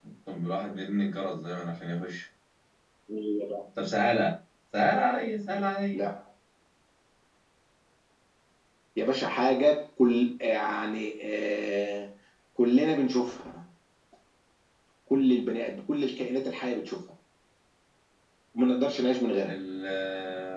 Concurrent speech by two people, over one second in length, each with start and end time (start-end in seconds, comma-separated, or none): none